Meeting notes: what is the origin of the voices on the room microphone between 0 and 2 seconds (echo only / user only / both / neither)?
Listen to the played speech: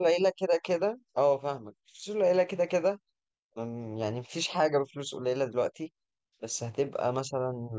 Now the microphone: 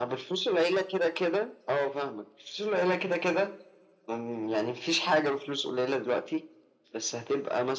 echo only